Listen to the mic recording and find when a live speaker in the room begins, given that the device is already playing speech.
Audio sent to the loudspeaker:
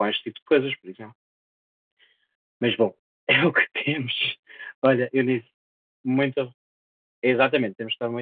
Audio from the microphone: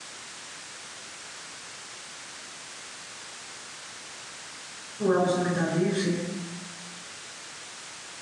5.0 s

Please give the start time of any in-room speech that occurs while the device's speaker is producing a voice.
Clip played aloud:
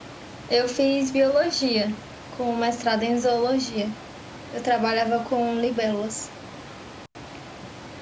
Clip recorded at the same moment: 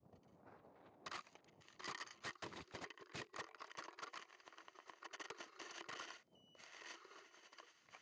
none

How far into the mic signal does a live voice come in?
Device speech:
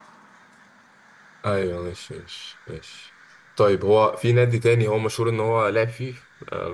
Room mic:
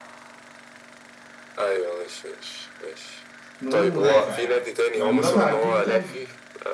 3.6 s

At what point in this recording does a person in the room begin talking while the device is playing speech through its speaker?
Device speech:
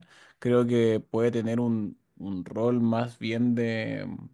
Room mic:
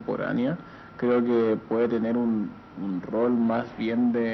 none

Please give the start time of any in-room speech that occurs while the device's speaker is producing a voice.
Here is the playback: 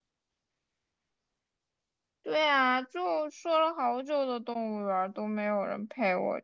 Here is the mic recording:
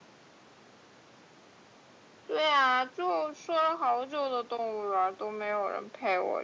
none

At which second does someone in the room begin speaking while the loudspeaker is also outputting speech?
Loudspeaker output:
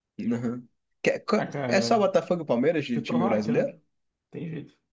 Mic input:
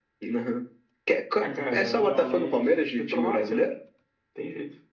1.4 s

